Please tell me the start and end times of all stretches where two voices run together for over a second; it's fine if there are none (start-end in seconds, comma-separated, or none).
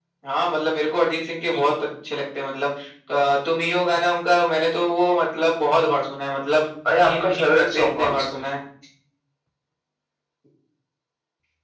7.0-8.3